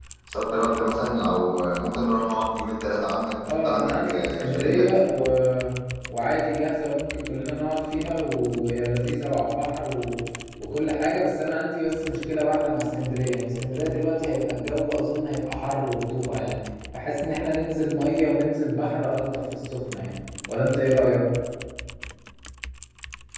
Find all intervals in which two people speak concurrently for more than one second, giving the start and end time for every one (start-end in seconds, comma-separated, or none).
3.5-4.8